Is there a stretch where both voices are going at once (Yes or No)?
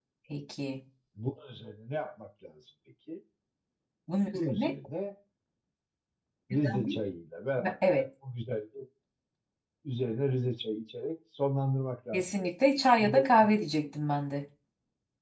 Yes